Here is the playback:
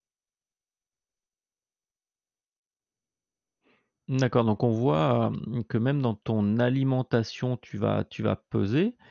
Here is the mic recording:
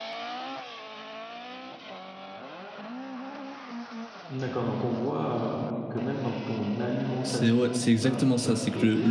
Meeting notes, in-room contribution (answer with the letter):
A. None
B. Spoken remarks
B